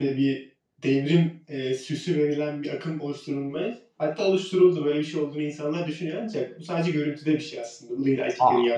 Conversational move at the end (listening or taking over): taking over